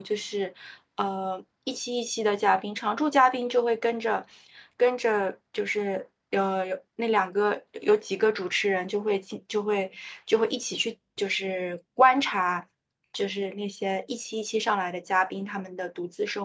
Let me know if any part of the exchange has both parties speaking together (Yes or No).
No